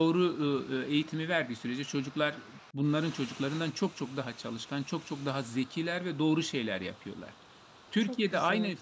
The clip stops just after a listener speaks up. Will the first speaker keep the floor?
Yes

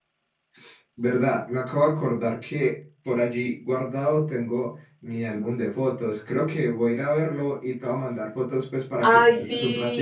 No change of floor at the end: No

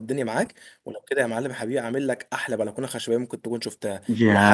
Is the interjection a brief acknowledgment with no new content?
No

